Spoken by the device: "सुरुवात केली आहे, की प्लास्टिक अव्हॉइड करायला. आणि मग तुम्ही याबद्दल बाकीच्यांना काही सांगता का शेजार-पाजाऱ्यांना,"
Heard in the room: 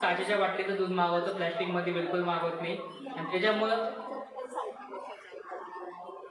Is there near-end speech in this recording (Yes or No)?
Yes